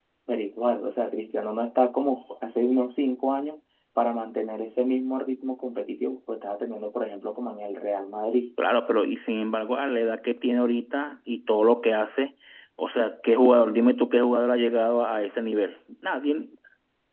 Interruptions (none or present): none